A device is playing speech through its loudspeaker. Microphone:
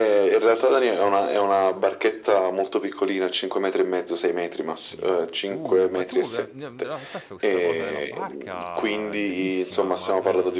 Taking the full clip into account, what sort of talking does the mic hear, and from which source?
both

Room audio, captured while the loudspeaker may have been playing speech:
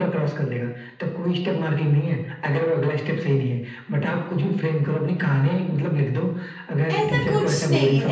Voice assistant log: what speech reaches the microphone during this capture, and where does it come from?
both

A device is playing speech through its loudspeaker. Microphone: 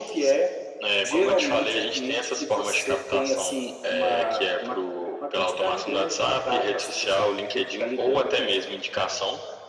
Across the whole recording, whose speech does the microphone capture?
echo only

